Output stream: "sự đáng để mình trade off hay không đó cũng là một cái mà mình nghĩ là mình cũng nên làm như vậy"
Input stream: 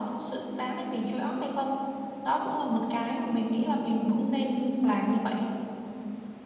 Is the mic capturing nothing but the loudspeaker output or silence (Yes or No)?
Yes